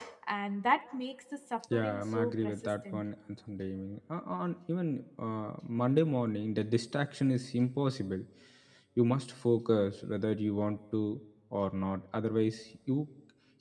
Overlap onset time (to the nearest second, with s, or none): 2 s